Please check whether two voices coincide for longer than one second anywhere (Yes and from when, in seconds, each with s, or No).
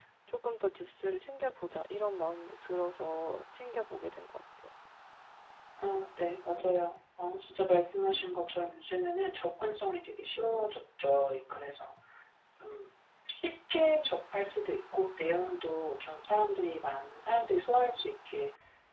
No